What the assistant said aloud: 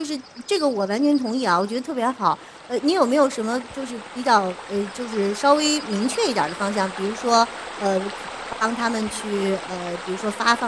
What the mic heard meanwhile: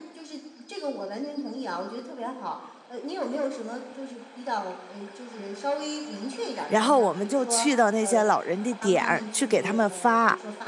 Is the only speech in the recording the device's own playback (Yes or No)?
No